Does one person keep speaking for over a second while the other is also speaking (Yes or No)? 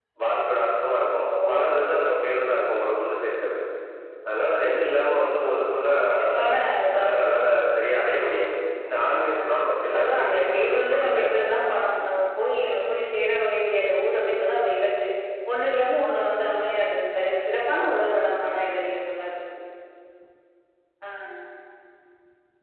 Yes